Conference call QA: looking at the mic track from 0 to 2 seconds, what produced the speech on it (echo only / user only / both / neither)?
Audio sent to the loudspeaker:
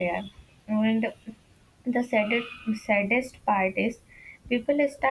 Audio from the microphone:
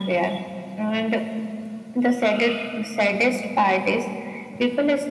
echo only